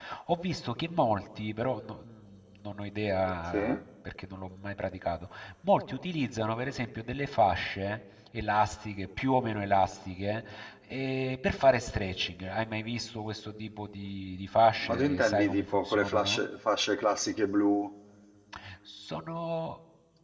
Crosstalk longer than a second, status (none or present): present